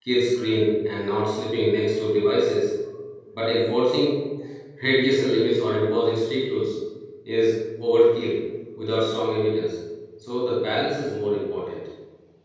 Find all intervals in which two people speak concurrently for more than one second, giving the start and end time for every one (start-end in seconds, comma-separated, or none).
none